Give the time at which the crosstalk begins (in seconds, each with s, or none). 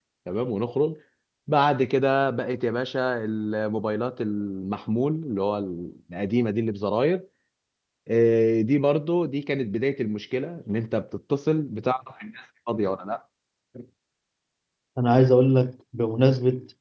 none